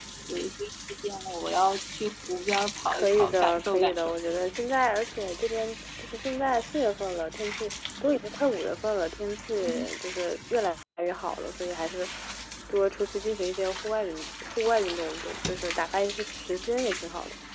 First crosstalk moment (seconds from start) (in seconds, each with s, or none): 2.9 s